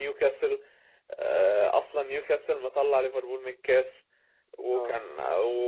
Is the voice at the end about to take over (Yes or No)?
No